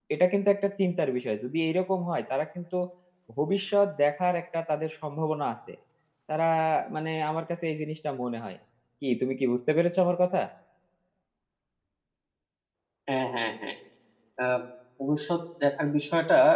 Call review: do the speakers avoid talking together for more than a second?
Yes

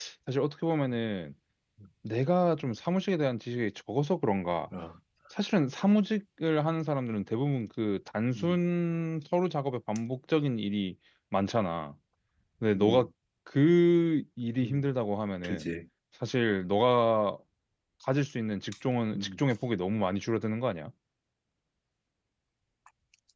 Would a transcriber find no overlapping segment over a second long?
Yes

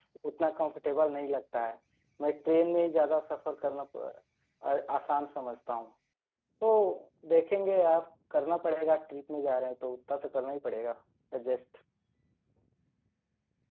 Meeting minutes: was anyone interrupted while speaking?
No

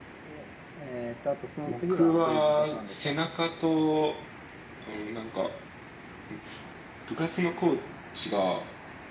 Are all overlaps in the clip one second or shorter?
No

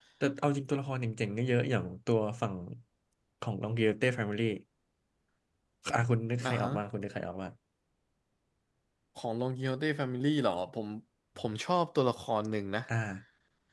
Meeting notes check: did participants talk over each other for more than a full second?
No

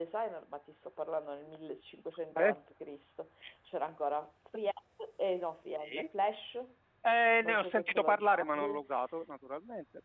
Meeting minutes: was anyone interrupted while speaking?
Yes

